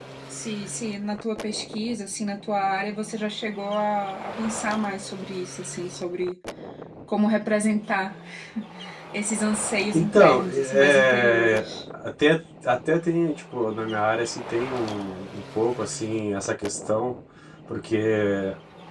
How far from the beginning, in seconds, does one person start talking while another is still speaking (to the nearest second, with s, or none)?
10 s